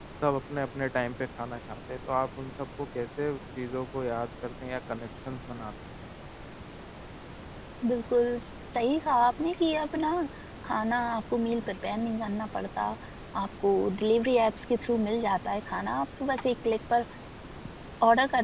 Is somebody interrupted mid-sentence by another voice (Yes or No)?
No